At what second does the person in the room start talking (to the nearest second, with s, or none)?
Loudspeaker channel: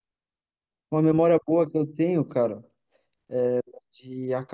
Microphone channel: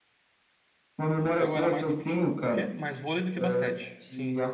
1 s